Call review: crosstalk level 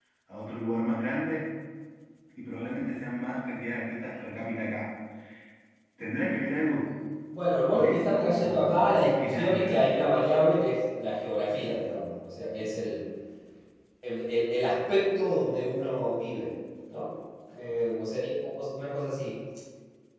present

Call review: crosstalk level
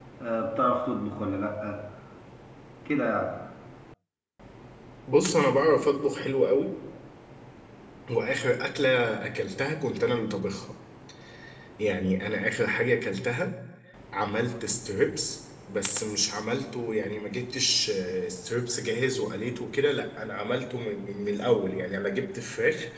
none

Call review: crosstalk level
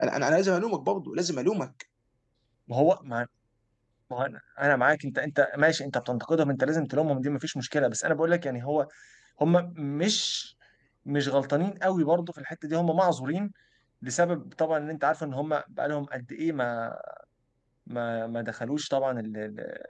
none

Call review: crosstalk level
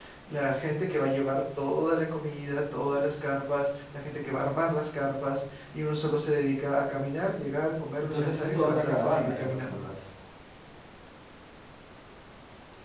present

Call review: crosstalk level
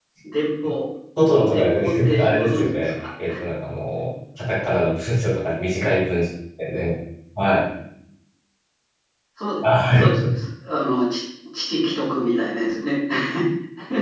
present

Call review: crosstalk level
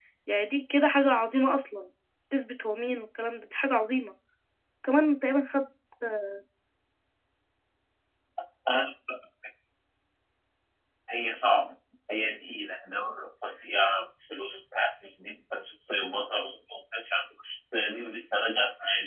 none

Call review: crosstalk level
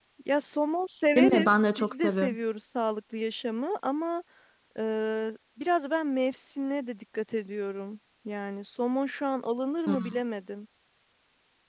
present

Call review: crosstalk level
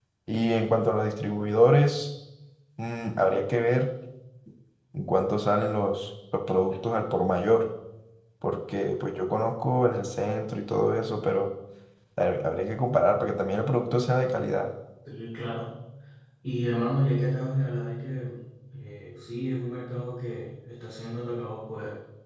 none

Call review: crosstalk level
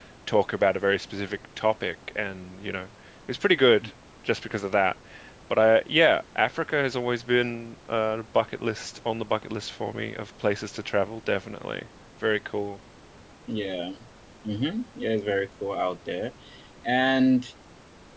none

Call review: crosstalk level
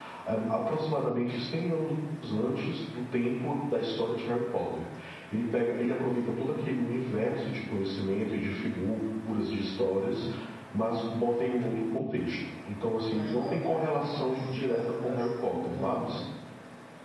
present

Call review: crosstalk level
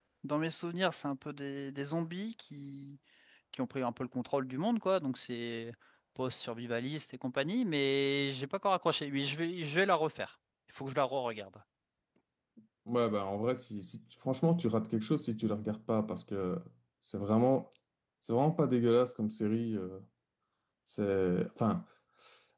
none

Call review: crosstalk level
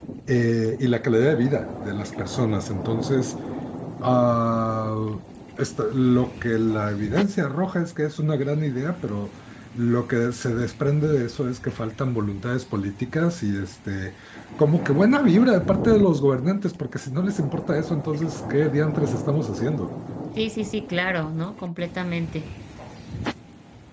none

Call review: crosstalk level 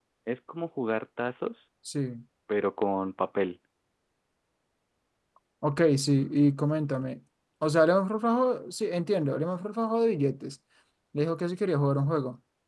none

